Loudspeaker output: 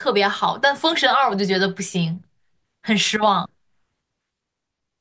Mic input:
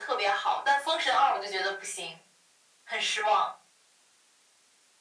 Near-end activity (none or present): none